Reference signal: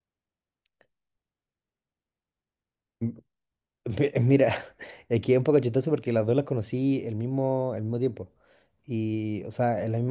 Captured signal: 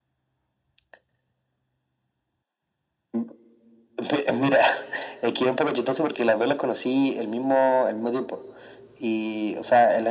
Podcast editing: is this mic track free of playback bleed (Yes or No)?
No